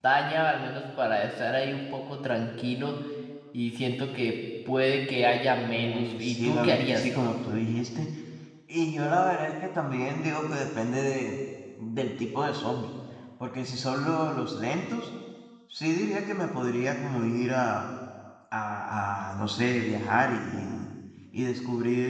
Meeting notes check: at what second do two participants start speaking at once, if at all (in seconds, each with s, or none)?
5.7 s